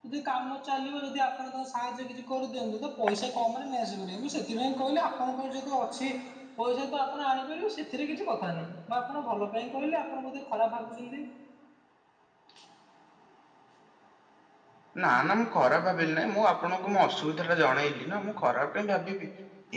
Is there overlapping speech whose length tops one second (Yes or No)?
No